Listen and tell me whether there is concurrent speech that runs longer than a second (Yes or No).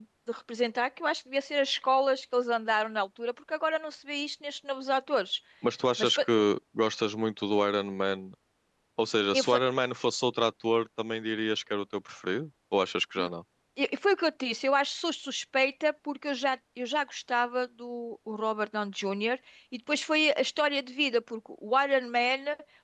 No